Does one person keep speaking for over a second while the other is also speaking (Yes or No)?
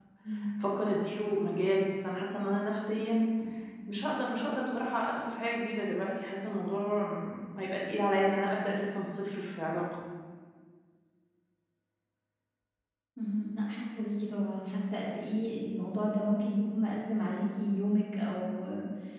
No